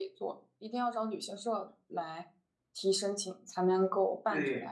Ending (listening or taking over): taking over